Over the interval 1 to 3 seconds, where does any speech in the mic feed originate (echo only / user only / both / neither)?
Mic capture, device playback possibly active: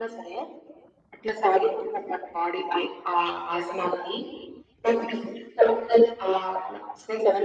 echo only